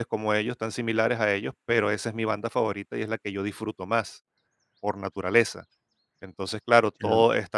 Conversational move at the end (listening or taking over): listening